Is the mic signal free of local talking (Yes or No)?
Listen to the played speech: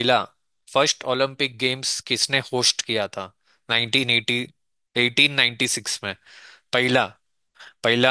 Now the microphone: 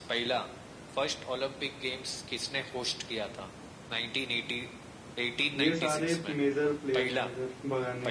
No